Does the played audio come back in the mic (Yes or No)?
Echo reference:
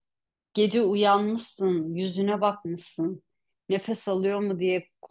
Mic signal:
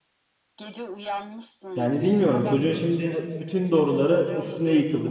Yes